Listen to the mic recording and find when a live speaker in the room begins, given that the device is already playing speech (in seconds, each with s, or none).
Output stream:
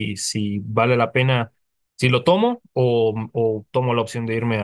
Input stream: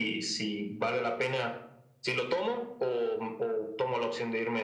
none